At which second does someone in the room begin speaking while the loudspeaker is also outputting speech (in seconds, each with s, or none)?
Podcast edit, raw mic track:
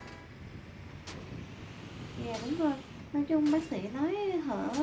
2.2 s